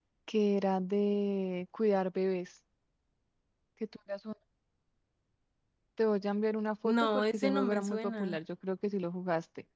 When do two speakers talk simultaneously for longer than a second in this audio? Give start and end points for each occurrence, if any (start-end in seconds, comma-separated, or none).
6.8-8.4